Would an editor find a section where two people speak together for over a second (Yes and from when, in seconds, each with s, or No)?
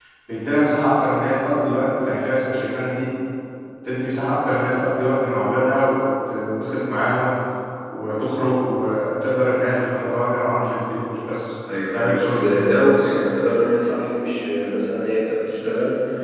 Yes, from 11.9 s